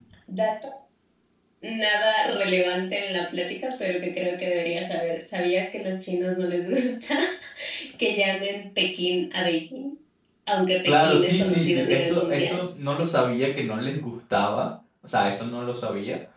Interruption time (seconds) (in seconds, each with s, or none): 10.8 s